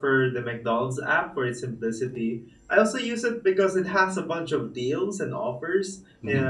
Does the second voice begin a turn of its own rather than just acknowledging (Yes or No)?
No